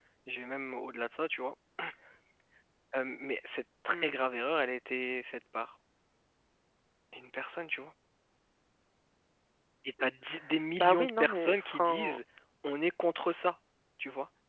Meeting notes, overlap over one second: present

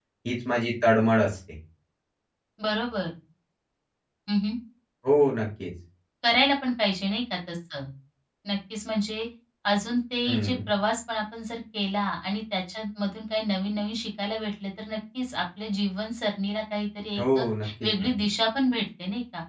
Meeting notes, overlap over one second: none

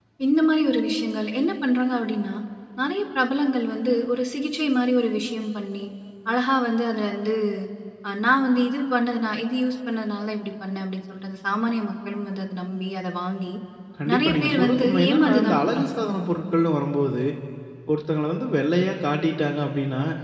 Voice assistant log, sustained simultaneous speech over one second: present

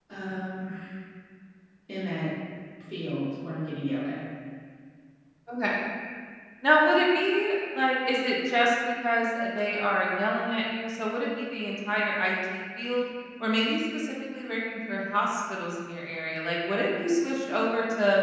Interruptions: none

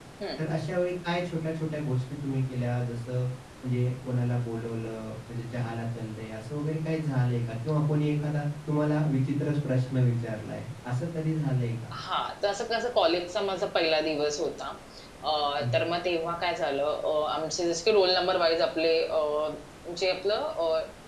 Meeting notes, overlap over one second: none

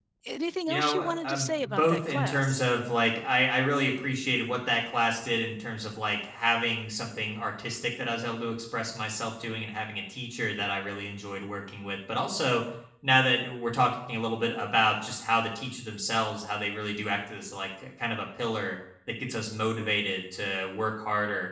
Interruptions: present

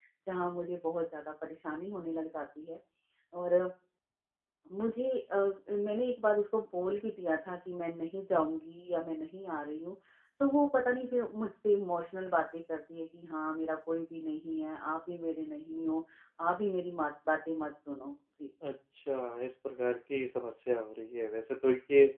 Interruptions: none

